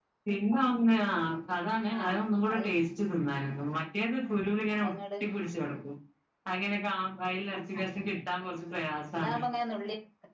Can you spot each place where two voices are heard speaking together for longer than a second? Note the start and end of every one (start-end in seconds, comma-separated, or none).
none